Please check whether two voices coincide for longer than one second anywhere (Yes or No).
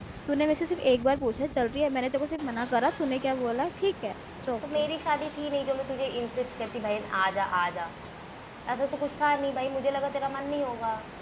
No